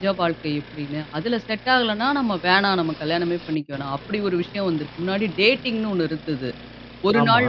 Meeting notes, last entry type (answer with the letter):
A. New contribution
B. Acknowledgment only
B